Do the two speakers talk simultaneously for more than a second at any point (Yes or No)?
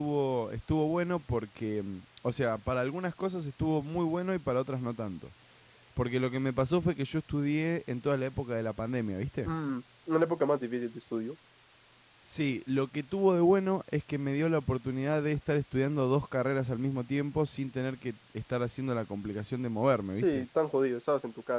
No